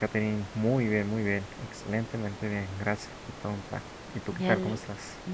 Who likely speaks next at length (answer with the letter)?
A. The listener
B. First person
A